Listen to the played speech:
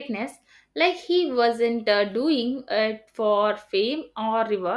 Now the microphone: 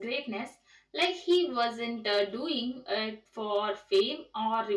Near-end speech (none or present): none